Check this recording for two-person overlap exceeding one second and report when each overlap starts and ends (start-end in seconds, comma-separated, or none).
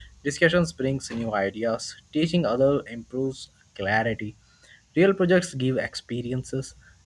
none